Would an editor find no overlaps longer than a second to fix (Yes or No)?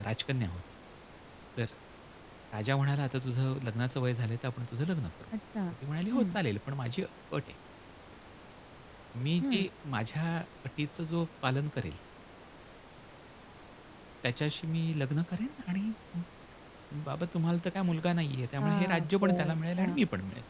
No